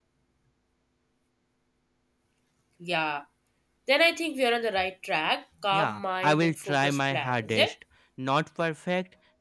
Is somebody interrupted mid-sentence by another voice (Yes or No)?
Yes